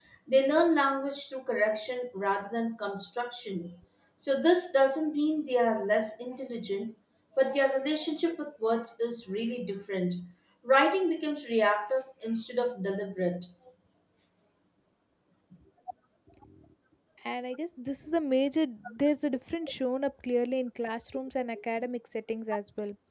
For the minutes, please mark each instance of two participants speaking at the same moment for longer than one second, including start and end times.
none

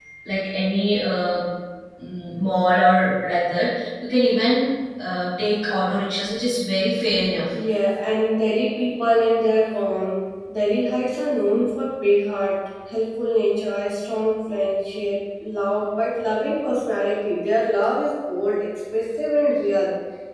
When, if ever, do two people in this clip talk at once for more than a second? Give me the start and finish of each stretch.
none

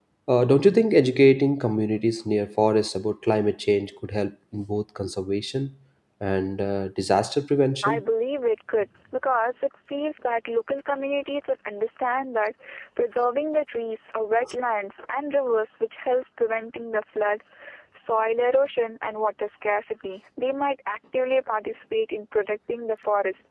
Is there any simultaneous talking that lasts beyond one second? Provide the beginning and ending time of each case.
none

